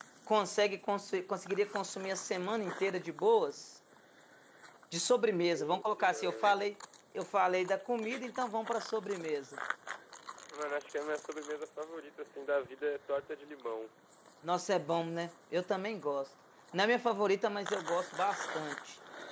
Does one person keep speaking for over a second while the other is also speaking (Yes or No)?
Yes